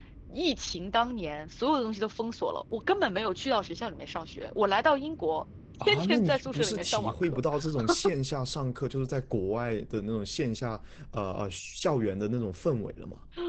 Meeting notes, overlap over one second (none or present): present